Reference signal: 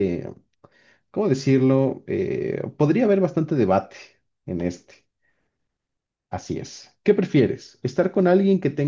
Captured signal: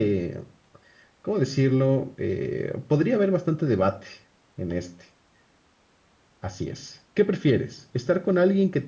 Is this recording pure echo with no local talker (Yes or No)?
Yes